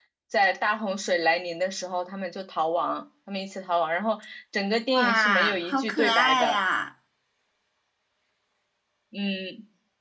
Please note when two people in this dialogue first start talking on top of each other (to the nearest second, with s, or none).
5 s